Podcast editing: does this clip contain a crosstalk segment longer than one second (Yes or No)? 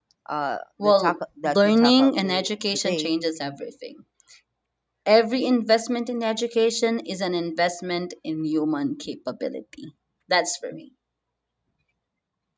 Yes